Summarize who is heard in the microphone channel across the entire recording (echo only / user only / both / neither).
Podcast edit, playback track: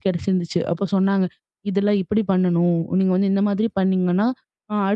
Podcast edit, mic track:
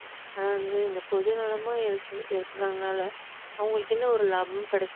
user only